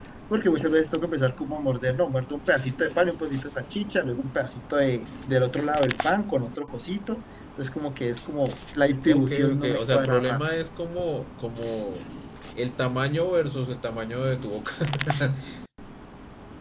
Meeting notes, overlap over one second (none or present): present